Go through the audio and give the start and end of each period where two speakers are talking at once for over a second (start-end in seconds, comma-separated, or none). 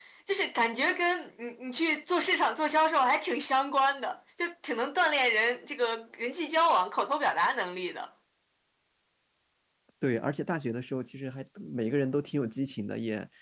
none